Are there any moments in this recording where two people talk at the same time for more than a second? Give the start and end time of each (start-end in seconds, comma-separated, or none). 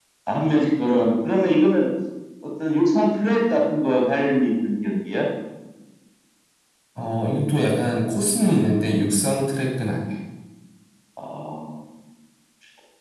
none